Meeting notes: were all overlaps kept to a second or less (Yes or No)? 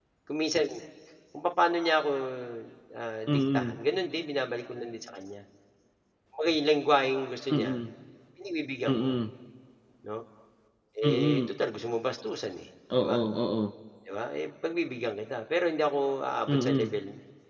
Yes